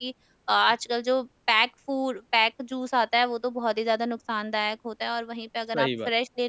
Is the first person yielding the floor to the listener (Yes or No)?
No